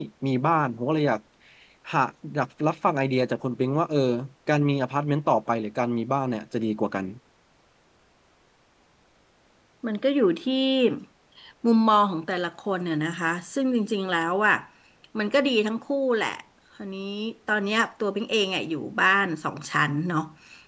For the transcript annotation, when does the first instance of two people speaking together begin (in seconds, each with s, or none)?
none